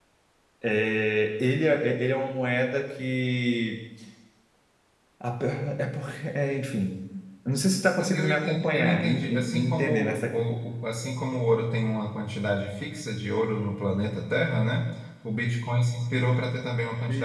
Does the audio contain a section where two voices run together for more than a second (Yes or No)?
Yes